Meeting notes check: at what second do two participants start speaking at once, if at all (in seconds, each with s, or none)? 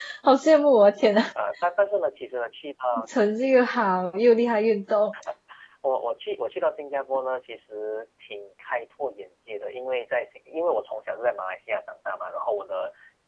none